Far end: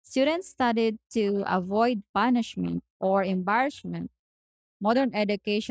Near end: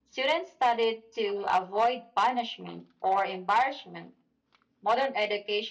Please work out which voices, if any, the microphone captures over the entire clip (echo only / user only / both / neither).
echo only